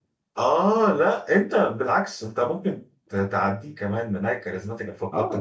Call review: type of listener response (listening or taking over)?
taking over